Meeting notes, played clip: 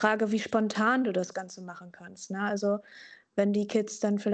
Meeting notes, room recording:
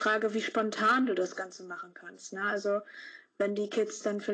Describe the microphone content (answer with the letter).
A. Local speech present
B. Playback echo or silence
B